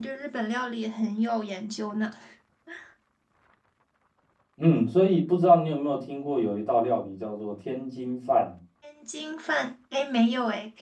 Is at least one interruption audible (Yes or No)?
No